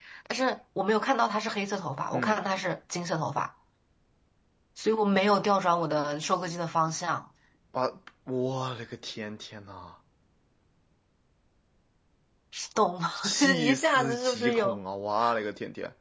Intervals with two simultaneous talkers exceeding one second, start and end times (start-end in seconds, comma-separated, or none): 13.2-14.8